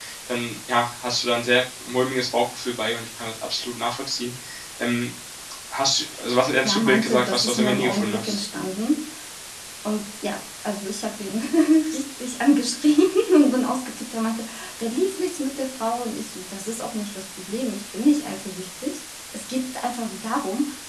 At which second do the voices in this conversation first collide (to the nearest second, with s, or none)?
7 s